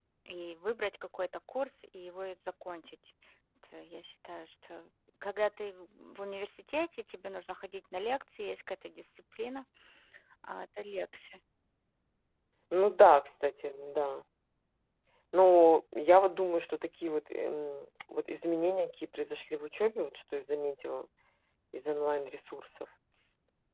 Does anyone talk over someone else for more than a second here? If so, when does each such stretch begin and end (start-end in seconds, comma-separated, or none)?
none